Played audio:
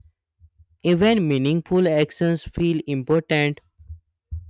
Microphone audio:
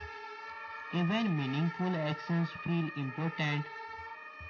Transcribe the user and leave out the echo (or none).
none